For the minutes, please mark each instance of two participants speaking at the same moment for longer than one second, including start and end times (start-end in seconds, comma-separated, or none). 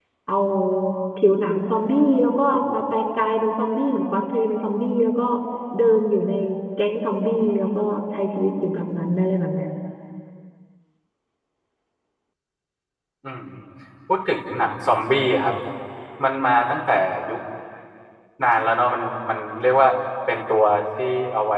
none